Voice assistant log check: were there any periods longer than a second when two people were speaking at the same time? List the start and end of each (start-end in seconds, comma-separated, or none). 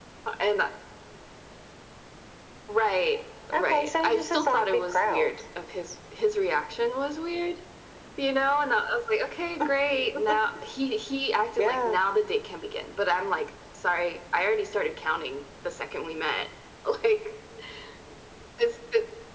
3.5-5.4